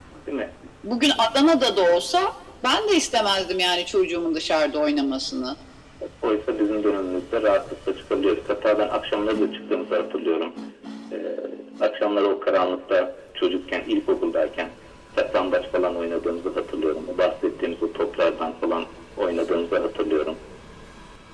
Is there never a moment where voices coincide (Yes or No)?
Yes